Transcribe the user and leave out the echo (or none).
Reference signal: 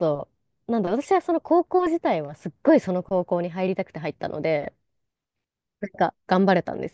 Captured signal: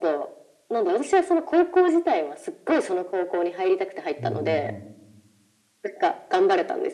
うんうん